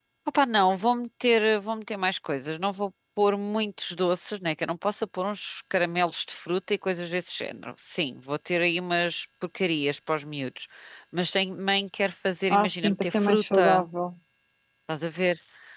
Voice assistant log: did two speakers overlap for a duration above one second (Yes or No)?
Yes